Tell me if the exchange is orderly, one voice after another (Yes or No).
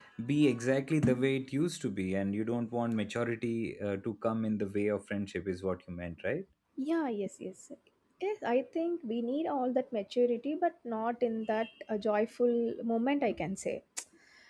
Yes